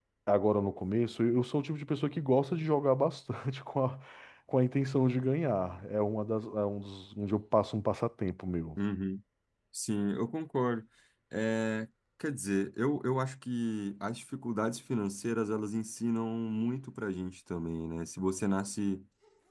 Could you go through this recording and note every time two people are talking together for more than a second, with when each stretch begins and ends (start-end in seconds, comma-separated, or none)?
none